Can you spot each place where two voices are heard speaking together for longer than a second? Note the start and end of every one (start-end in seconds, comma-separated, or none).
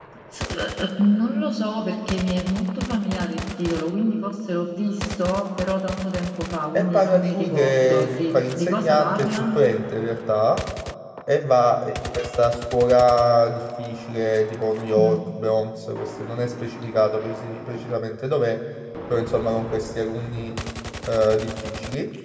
6.7-9.5